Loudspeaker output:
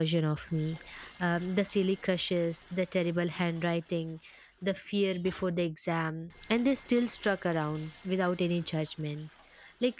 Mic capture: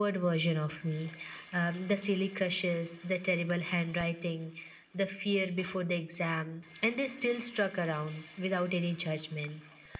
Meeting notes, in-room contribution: none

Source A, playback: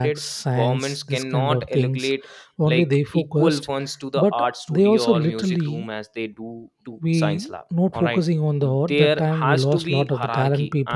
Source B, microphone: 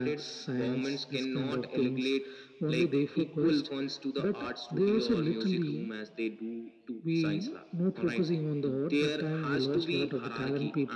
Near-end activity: none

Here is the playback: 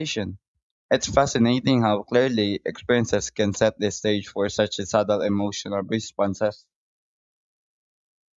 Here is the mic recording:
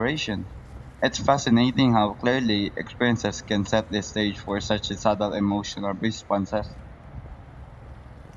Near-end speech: none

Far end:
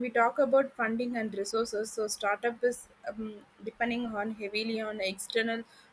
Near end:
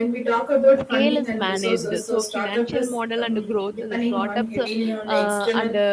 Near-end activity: present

